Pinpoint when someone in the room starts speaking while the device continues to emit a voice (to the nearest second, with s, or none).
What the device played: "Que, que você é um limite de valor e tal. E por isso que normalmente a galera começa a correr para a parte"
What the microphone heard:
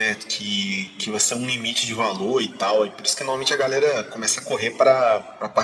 none